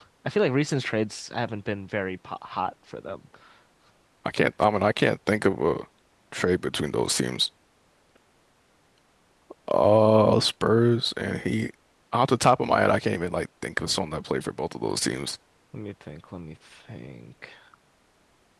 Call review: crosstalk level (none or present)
none